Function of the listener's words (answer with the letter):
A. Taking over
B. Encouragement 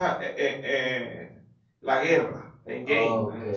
A